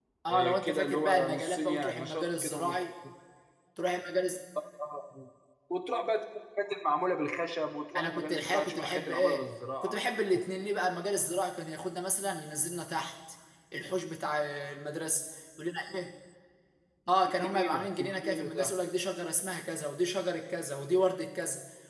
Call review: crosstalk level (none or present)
present